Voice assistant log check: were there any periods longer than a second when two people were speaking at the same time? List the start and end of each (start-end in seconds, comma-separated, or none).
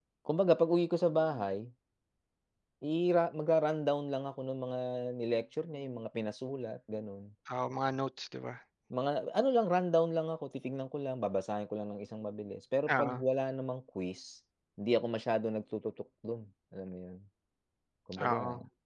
none